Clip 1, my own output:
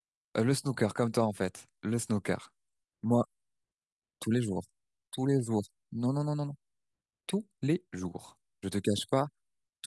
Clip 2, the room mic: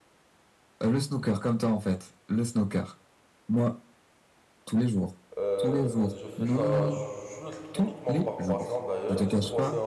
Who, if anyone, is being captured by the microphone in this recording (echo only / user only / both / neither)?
both